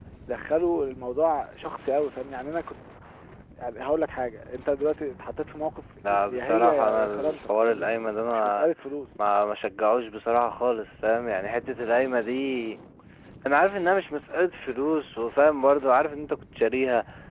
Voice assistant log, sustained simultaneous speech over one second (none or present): present